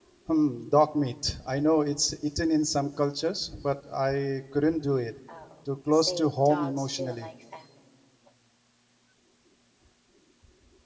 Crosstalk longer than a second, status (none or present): present